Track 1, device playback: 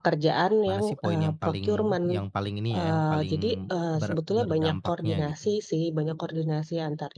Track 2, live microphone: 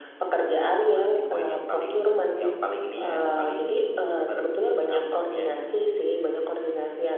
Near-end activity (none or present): none